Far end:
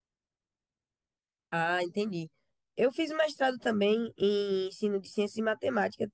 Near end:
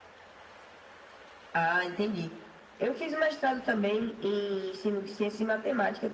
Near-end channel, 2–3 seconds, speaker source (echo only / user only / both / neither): echo only